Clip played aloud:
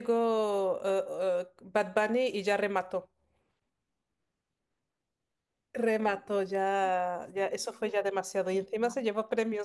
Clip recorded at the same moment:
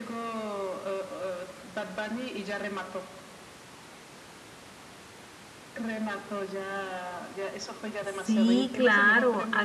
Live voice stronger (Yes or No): Yes